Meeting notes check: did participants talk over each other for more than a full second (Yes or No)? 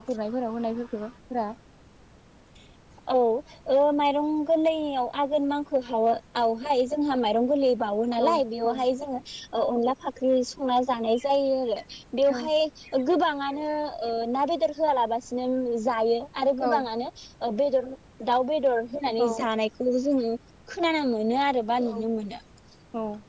No